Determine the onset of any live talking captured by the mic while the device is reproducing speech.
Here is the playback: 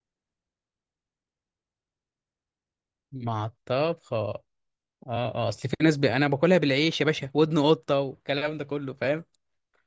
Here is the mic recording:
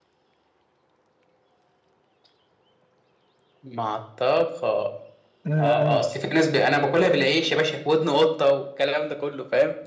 5.5 s

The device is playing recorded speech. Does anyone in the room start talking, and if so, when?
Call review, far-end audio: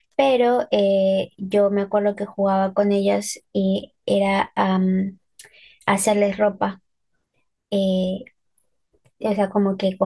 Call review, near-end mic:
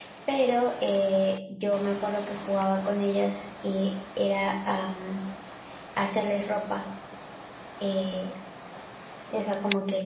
none

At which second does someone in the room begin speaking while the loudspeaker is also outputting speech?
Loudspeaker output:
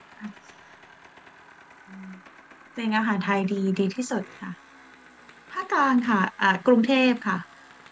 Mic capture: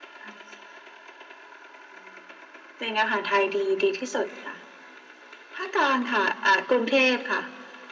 none

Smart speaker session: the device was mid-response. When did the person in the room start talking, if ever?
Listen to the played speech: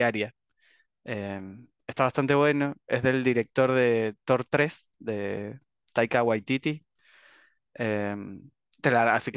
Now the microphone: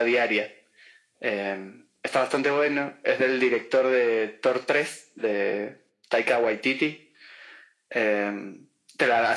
none

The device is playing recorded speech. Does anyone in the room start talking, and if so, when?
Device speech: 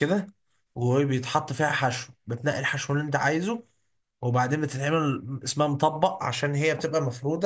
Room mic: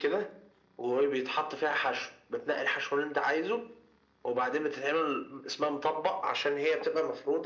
none

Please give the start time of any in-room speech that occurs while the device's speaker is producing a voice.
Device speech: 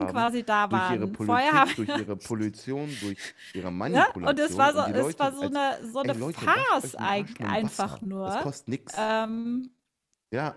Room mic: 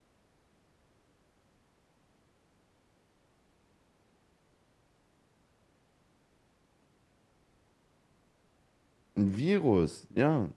9.2 s

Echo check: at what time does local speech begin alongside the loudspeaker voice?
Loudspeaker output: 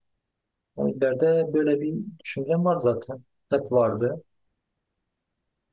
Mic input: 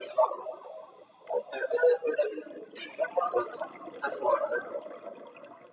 none

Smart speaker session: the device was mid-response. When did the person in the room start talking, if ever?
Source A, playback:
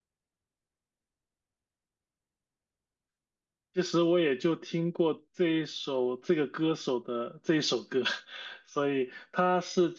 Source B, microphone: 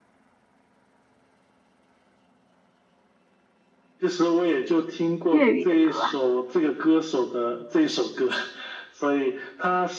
5.3 s

